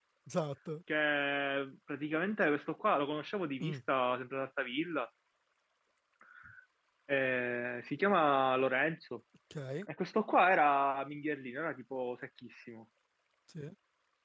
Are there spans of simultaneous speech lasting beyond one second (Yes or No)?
No